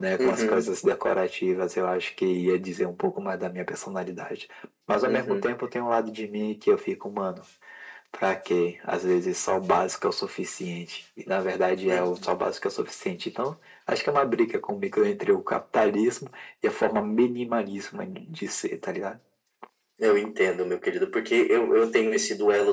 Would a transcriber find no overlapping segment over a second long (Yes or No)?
Yes